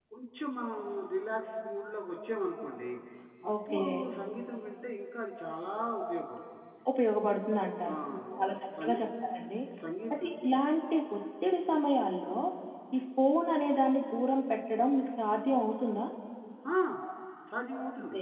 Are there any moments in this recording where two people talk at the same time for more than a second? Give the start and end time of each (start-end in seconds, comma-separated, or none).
none